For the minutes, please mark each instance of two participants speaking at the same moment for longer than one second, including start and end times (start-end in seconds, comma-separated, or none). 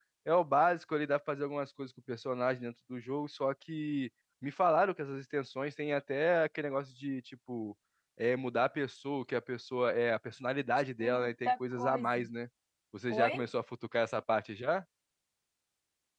11.0-12.2